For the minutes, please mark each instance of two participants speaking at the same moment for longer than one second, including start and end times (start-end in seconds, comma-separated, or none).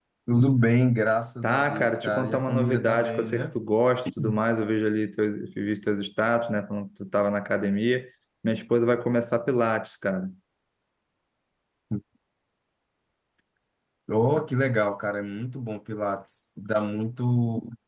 1.4-3.6